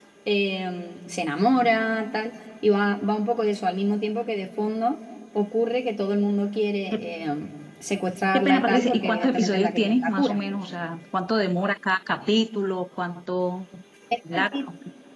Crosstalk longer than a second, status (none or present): present